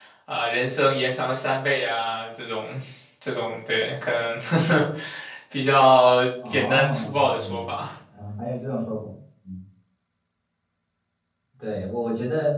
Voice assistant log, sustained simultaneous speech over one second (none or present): present